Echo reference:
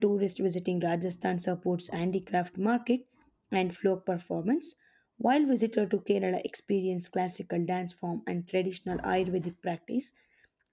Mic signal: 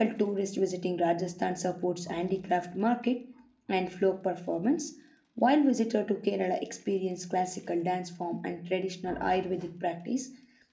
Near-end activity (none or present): none